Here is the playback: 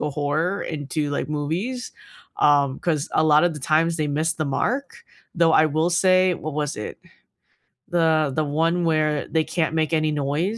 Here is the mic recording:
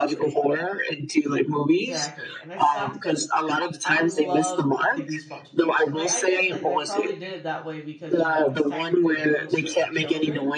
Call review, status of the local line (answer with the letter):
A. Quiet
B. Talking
B